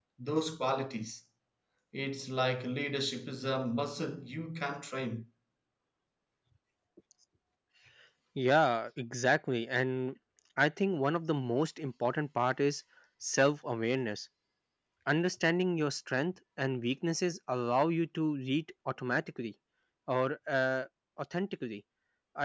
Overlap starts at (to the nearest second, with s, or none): none